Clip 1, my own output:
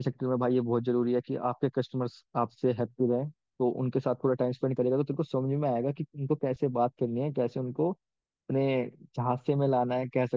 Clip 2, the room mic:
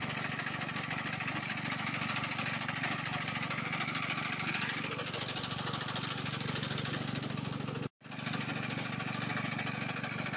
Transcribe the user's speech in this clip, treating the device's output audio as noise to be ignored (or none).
none